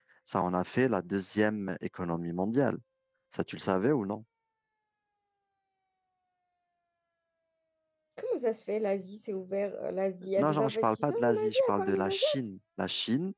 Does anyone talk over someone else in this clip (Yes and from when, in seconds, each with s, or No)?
Yes, from 10.4 s